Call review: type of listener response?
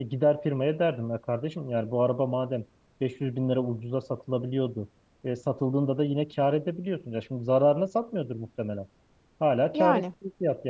listening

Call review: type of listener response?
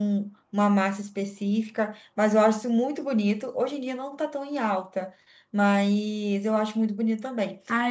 taking over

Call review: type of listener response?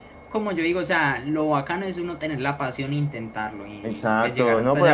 taking over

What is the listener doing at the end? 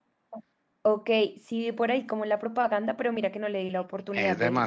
taking over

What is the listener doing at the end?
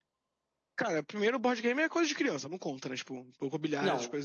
taking over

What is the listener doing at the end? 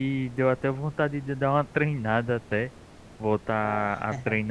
listening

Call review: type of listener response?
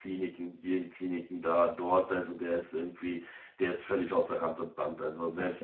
listening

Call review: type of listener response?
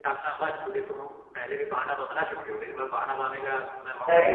taking over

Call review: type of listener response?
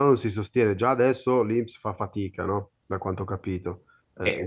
taking over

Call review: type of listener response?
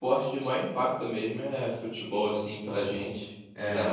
listening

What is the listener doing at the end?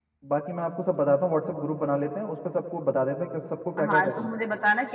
taking over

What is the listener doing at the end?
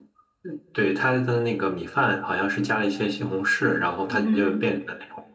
listening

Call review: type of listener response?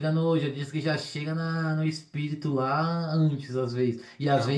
listening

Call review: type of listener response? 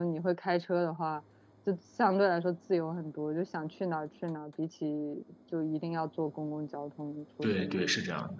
taking over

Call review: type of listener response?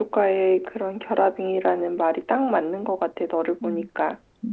taking over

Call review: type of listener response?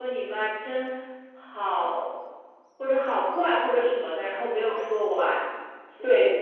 taking over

